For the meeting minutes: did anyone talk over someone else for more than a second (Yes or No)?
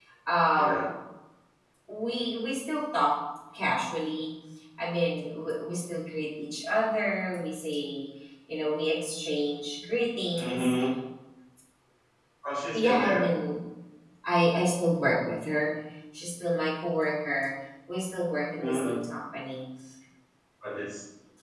No